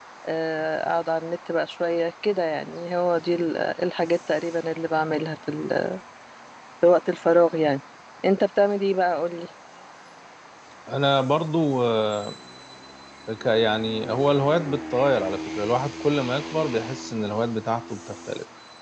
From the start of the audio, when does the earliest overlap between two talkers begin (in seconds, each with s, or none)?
none